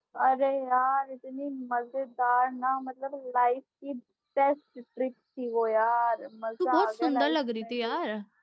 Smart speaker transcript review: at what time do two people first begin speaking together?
7 s

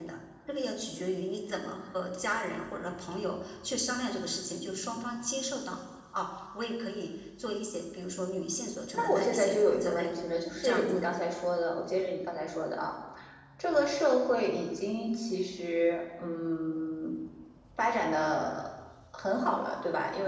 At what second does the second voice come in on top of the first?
9 s

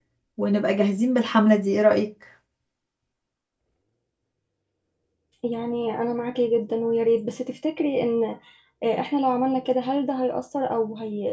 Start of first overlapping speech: none

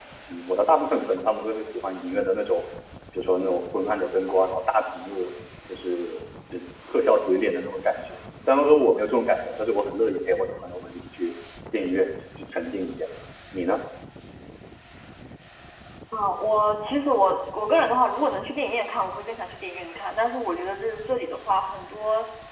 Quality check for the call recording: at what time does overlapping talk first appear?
none

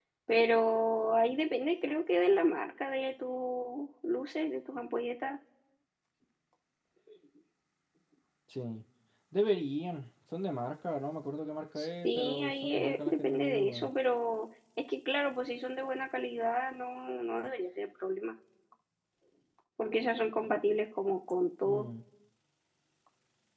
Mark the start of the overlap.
12 s

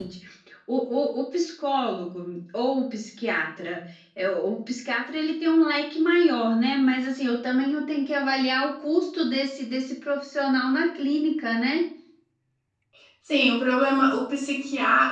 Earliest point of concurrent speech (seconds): none

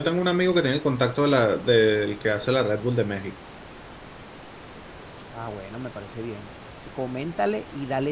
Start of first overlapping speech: none

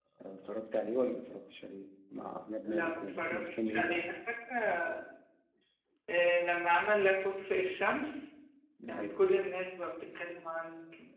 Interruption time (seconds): 3 s

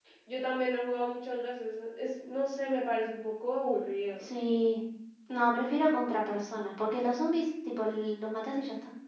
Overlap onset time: none

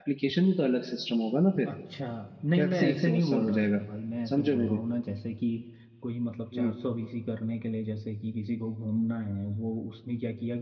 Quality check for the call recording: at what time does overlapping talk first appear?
3 s

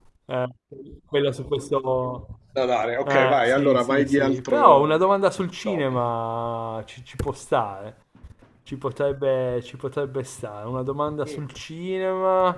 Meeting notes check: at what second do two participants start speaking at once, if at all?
3 s

